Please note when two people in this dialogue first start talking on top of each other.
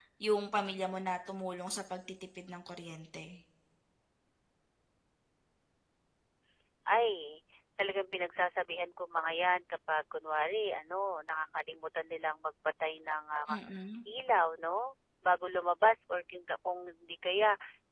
none

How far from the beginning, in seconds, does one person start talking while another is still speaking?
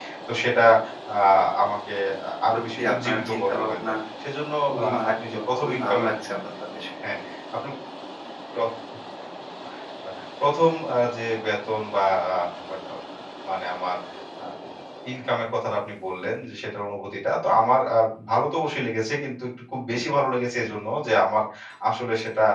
2.5 s

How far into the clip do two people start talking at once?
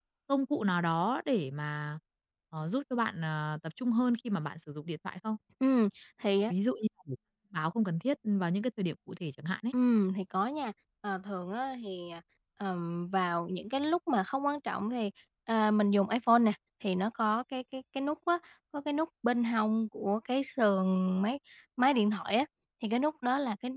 none

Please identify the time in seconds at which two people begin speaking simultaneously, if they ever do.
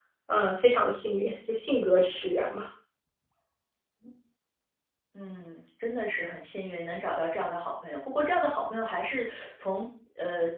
none

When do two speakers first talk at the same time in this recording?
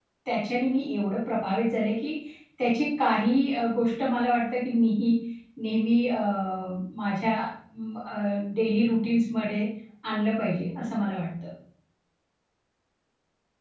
none

